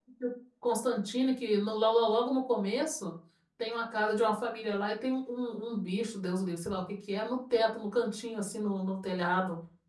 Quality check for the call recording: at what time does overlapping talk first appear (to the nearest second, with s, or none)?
none